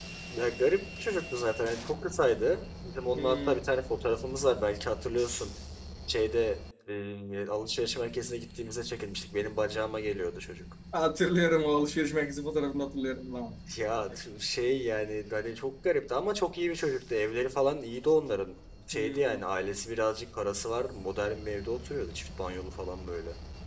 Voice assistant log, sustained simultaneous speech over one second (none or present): none